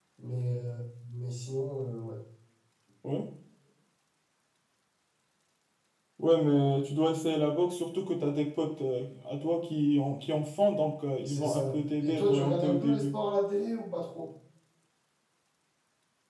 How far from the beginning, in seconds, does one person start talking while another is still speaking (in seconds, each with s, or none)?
11.2 s